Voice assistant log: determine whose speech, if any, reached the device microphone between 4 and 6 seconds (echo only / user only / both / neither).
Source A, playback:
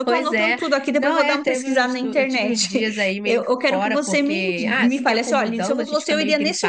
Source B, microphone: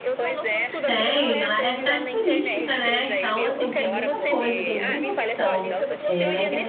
both